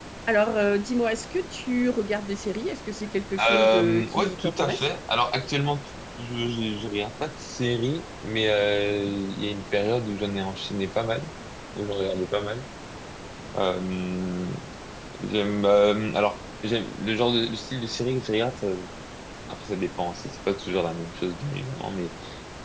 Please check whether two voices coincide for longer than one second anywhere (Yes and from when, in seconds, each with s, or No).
Yes, from 3.4 s